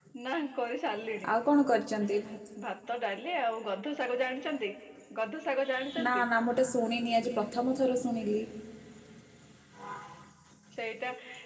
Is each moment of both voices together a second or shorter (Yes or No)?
Yes